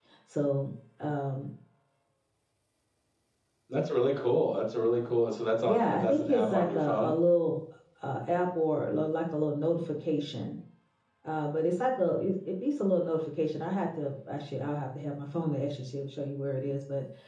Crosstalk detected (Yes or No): Yes